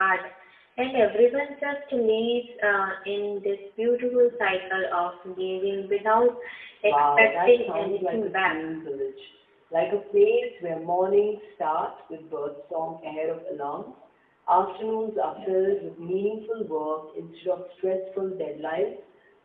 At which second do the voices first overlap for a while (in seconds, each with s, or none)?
6.9 s